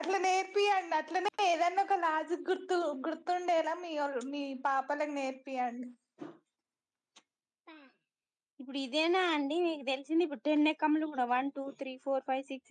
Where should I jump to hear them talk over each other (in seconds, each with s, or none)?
none